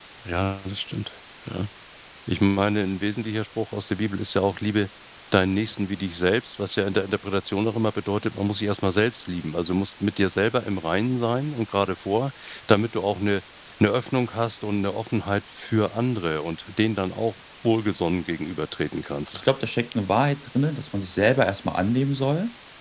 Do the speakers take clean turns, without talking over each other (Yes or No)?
Yes